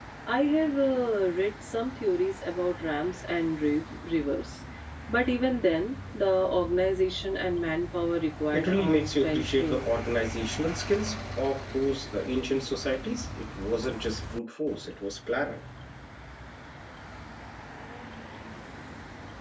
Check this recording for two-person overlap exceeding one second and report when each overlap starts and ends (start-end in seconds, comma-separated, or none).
8.5-9.9